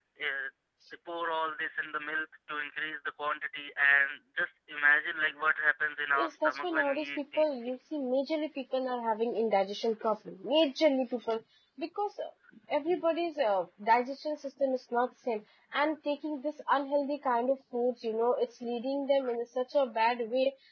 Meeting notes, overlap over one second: present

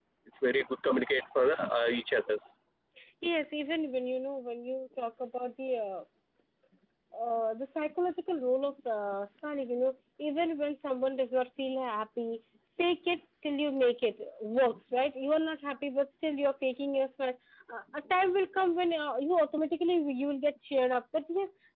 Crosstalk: none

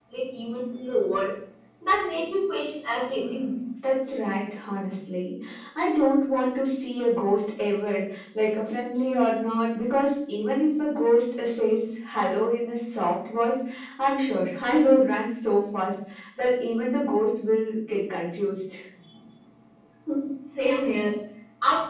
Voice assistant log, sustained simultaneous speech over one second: none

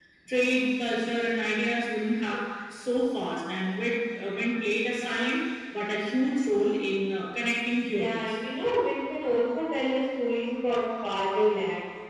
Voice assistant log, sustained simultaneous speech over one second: none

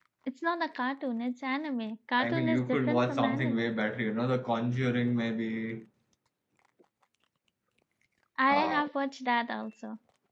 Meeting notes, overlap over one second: present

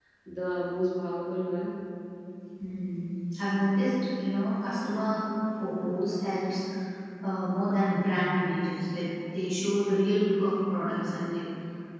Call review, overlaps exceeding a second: none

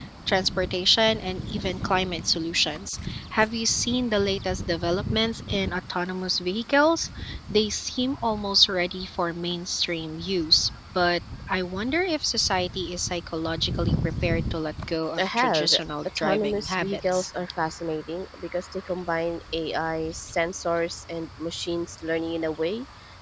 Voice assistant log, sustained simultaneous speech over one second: present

